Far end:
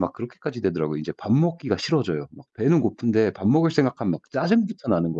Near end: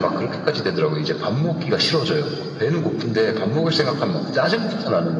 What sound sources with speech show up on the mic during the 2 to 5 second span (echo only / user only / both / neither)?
echo only